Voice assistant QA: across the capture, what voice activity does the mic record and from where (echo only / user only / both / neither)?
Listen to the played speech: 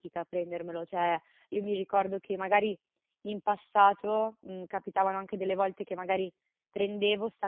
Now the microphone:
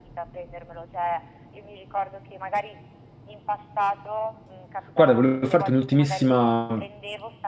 both